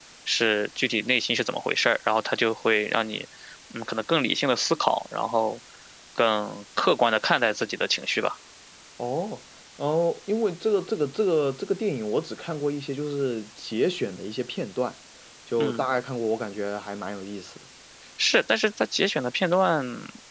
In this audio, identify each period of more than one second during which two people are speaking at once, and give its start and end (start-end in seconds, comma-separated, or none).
none